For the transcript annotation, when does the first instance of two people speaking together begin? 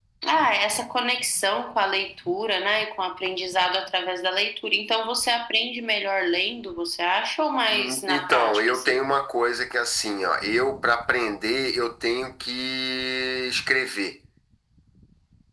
7.7 s

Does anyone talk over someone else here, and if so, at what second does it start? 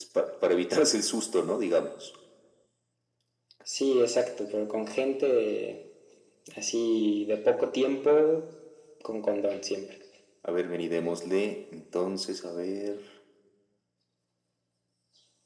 none

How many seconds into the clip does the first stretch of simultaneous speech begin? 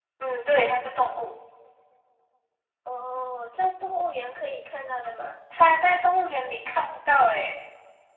none

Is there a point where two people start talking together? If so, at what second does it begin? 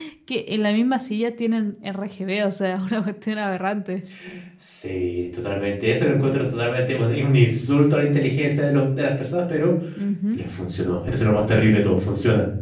none

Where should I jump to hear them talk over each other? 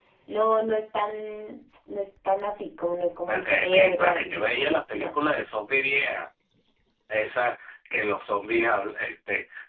3.3 s

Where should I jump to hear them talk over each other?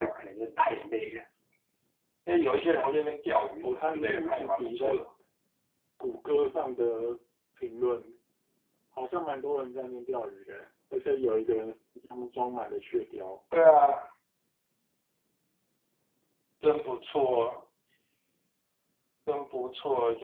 3.6 s

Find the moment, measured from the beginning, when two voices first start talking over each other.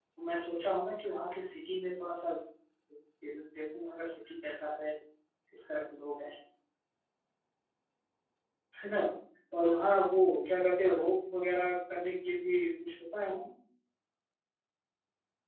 none

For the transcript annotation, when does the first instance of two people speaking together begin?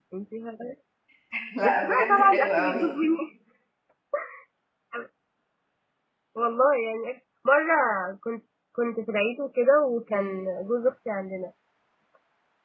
1.6 s

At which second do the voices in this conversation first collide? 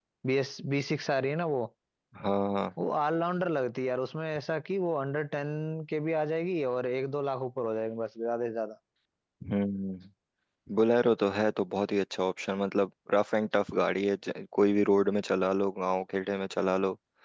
none

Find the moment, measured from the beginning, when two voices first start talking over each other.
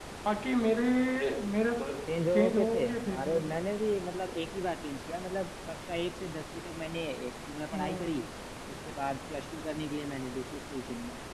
2.3 s

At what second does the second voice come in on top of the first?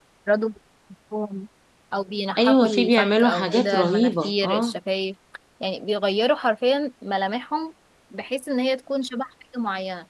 2.4 s

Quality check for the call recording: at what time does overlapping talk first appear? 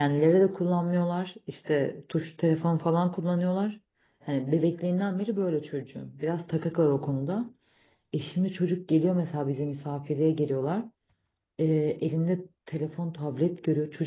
none

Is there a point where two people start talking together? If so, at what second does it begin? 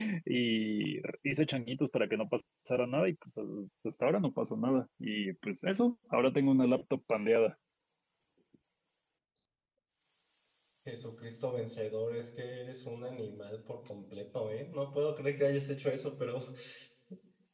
none

